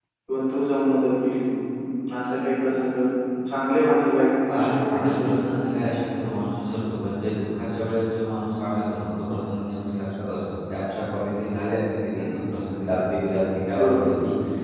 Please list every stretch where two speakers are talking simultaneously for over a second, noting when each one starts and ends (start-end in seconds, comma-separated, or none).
4.5-5.7